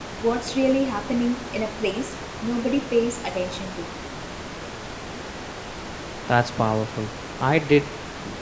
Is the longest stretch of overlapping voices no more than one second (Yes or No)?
Yes